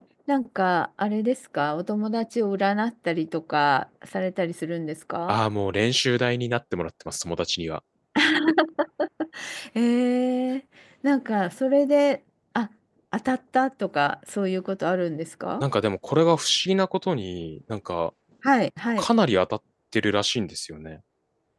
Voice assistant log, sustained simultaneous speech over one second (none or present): none